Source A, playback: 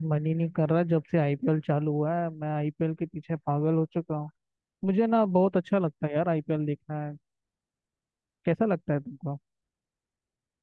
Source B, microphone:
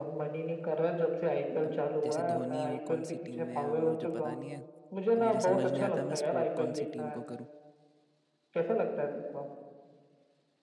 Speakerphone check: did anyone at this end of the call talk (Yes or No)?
Yes